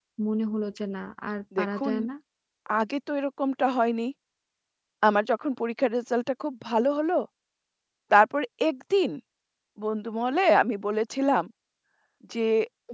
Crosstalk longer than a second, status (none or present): none